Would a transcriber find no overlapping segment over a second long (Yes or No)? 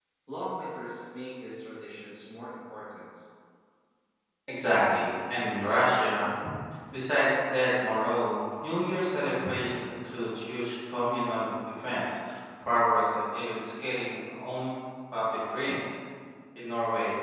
Yes